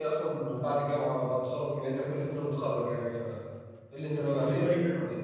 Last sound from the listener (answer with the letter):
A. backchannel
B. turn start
B